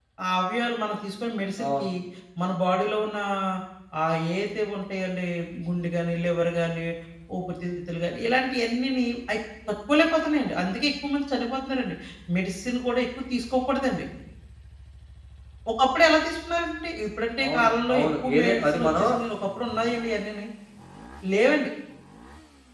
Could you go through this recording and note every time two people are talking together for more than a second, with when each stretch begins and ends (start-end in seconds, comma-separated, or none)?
17.4-19.0